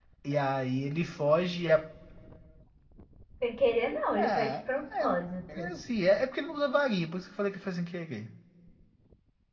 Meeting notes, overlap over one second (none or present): none